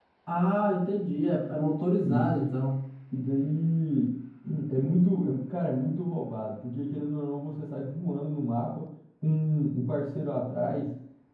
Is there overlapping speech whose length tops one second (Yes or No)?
No